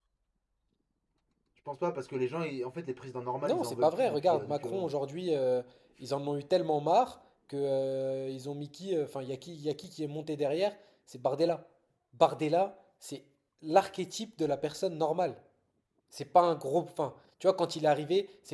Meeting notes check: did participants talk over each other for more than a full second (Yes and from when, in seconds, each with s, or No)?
Yes, from 3.4 s